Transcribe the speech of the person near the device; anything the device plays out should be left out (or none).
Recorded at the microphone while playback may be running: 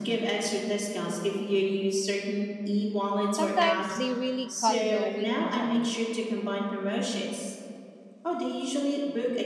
Sometimes they really cut the waiting time.